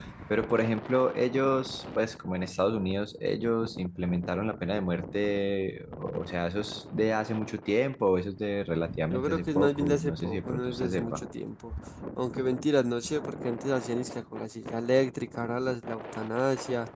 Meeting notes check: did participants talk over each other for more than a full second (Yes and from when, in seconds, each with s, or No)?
Yes, from 9.1 s